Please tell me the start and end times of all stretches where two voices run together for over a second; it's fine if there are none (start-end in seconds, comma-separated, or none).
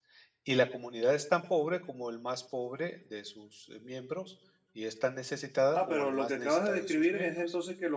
5.7-7.3